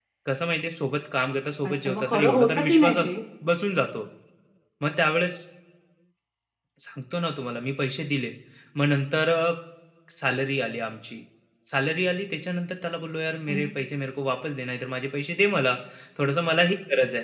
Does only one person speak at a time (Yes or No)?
No